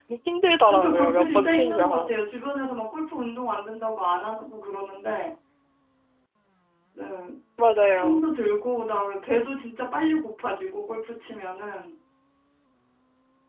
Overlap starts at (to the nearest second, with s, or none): 1 s